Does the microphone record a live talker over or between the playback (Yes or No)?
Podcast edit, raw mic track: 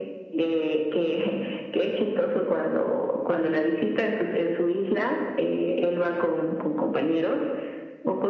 No